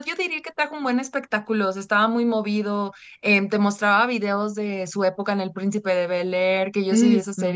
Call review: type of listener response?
listening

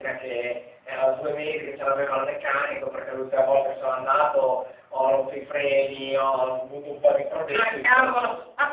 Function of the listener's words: taking over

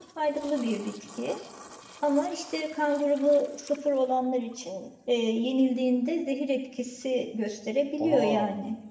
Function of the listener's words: listening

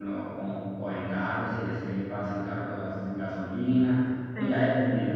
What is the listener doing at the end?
listening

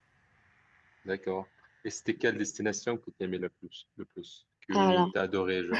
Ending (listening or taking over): listening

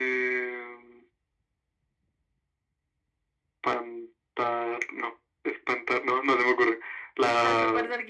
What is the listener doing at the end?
taking over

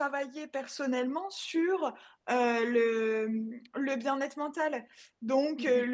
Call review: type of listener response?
listening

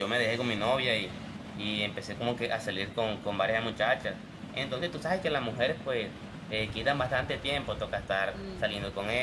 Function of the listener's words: listening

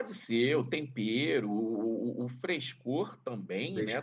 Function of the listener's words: listening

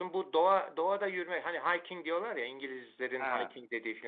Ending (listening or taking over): listening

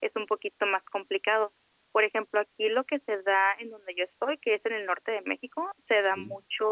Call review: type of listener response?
listening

